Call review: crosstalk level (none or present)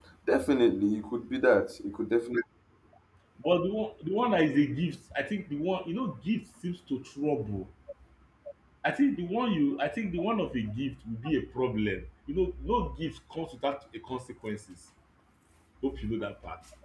none